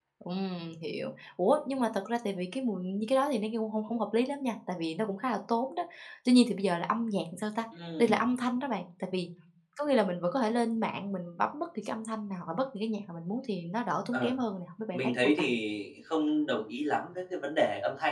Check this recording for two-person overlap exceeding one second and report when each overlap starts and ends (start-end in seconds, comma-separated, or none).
none